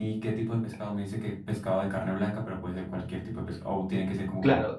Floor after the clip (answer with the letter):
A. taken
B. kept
A